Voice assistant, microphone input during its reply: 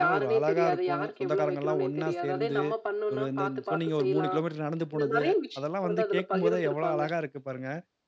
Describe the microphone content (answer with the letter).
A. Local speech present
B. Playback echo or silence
A